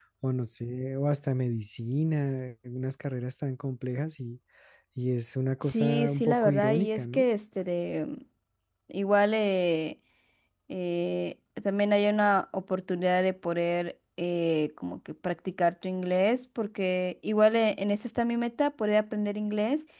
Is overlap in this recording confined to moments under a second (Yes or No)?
No